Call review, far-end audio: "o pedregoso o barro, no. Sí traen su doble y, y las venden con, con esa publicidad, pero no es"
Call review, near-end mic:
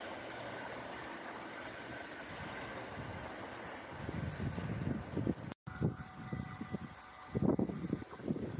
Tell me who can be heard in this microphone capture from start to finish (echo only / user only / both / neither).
neither